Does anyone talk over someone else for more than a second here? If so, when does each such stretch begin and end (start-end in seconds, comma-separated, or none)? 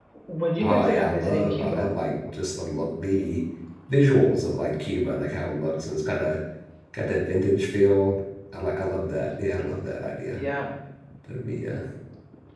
0.6-1.9